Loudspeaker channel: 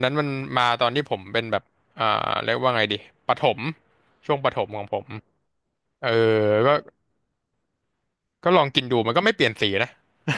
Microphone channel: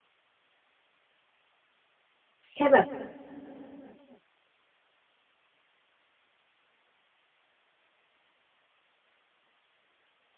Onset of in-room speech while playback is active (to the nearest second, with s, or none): 3 s